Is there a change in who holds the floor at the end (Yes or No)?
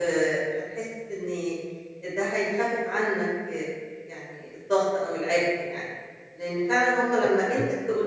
No